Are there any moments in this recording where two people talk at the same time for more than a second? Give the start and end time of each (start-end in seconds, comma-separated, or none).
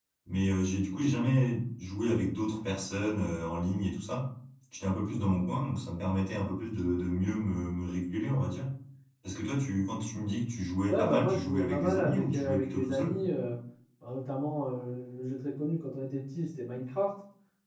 10.9-13.2